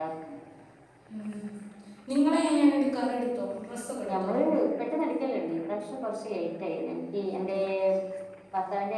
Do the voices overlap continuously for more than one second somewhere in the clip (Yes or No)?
No